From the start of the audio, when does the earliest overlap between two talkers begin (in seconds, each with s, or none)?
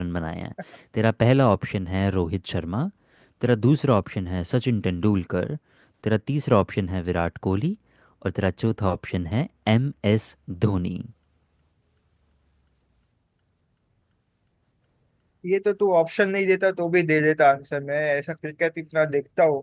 none